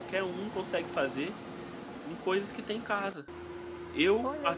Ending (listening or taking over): listening